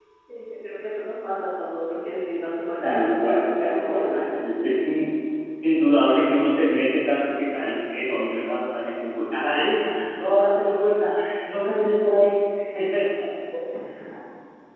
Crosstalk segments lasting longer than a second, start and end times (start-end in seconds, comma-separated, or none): 2.8-4.3